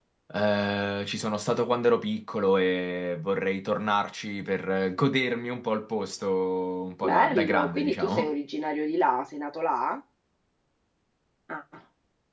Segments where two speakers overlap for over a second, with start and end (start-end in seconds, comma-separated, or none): 7.0-8.3